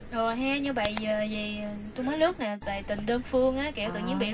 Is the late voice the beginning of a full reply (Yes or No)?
No